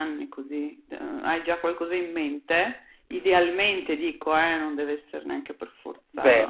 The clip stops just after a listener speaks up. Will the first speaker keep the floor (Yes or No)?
No